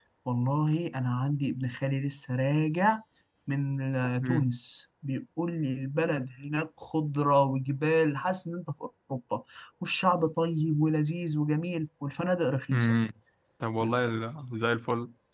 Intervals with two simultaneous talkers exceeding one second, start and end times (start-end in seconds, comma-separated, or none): none